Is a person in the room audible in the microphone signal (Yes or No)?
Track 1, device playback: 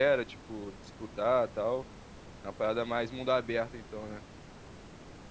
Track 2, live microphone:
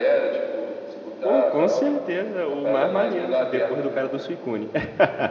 Yes